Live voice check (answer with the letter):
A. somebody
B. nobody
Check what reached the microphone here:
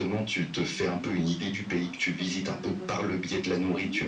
A